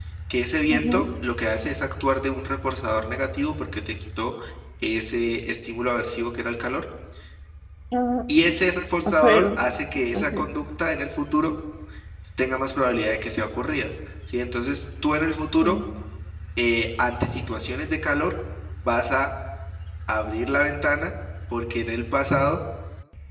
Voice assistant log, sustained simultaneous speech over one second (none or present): none